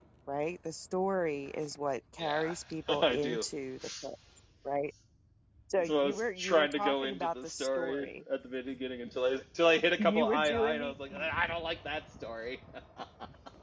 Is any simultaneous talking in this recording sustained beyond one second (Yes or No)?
Yes